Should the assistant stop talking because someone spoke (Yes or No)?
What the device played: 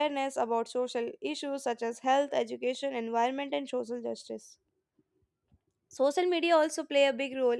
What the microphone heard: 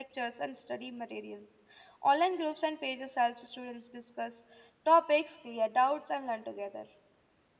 Yes